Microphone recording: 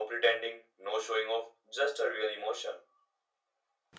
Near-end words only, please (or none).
none